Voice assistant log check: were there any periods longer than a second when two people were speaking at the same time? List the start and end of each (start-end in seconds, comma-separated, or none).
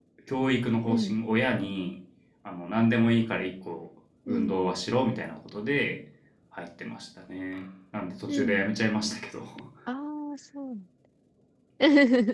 none